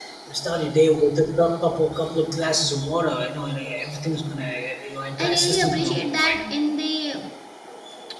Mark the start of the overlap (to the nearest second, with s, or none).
5 s